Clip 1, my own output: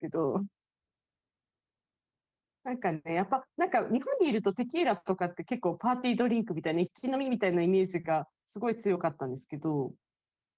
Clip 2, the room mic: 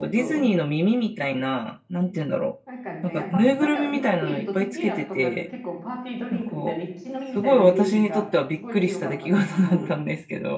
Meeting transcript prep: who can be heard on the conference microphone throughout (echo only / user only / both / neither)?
both